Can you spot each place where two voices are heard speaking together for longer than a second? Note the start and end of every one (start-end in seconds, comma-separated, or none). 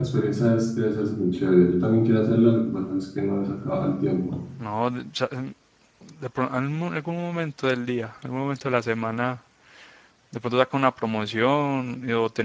none